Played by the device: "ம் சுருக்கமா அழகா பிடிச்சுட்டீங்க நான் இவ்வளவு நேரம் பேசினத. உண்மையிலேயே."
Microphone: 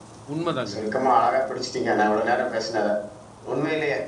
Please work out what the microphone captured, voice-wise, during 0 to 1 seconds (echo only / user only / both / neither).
both